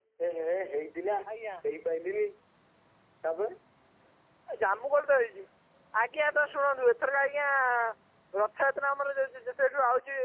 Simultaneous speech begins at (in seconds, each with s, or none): none